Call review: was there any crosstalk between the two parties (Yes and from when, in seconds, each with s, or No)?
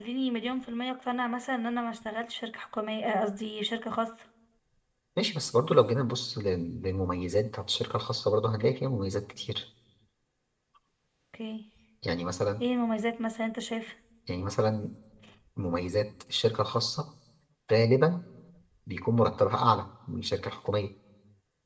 No